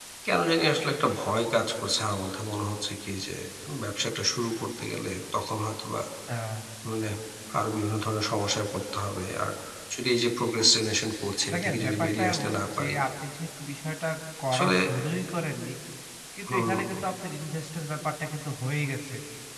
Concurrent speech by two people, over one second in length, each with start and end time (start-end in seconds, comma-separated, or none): 11.5-13.0